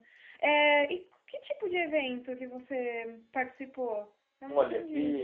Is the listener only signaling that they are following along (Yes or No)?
No